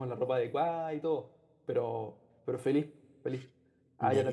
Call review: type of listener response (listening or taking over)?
listening